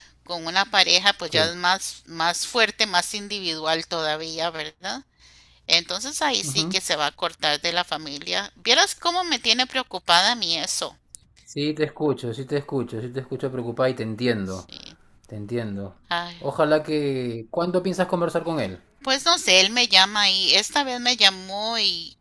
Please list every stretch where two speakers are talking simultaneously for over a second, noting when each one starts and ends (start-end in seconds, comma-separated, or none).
none